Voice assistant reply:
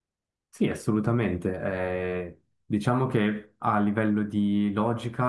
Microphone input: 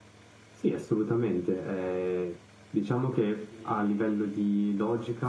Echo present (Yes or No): Yes